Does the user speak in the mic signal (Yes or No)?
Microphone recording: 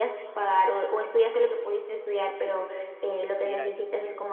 Yes